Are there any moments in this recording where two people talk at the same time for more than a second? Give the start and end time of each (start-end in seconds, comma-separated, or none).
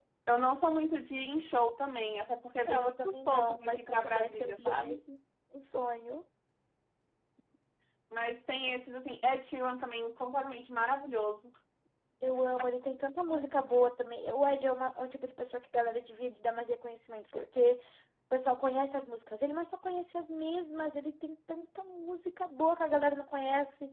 2.7-5.0